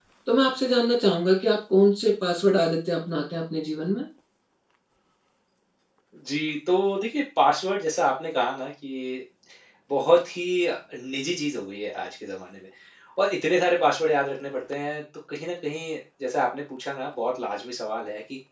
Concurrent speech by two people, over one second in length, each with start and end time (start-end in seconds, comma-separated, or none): none